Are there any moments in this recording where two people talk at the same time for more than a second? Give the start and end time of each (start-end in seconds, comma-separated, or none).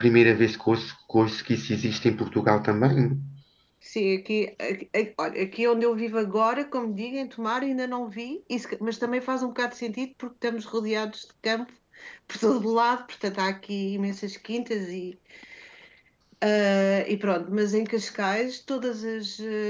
none